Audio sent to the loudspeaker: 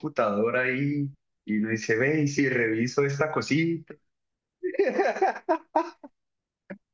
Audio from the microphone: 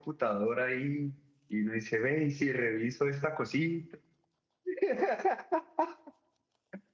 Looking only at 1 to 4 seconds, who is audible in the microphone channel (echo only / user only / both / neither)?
echo only